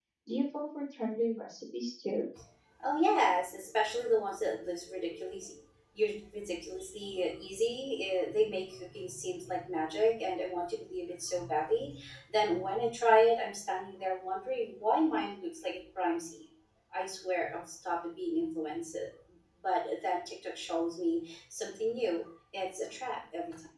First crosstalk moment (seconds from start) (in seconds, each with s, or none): none